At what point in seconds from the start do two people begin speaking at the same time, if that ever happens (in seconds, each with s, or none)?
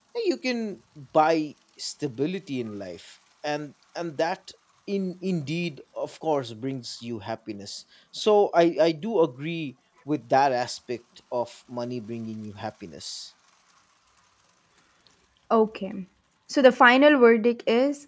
none